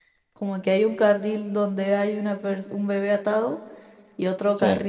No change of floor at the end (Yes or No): Yes